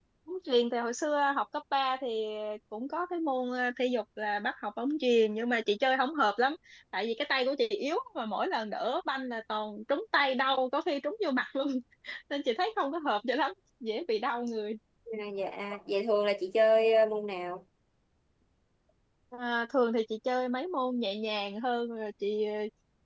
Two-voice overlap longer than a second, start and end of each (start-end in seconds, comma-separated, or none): none